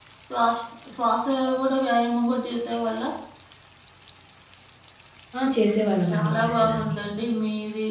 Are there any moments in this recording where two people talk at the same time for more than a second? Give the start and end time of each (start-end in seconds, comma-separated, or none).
5.7-7.0